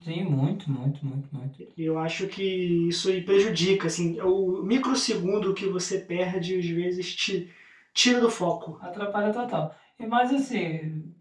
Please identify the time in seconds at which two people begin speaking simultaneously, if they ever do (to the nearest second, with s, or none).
none